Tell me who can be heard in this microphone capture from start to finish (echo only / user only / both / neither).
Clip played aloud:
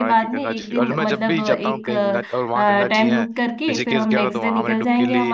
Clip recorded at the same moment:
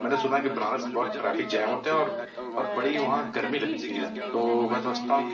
both